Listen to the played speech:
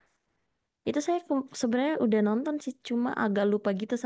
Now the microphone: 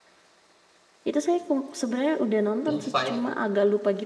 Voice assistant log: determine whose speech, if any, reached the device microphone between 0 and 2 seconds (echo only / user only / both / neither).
echo only